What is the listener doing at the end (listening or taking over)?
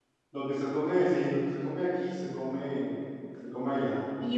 taking over